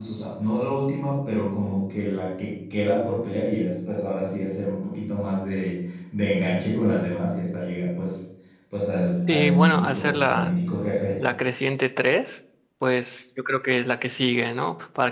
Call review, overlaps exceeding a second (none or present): present